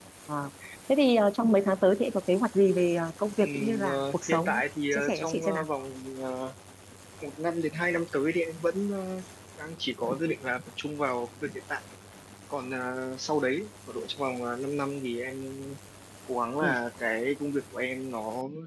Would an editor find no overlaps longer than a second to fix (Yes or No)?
No